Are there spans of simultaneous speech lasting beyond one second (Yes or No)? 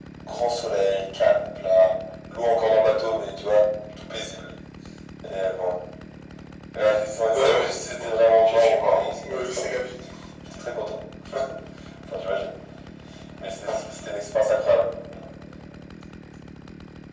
Yes